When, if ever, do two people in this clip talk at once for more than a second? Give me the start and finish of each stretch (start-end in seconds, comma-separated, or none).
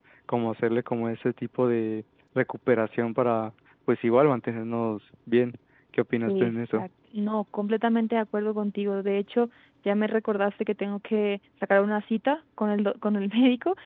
none